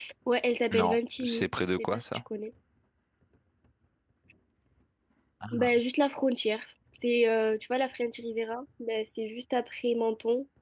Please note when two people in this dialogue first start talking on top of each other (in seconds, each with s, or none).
0.7 s